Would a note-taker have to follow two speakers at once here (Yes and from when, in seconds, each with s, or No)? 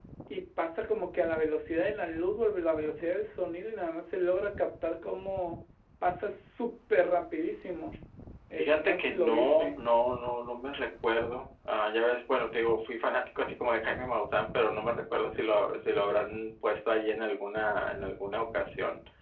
Yes, from 8.6 s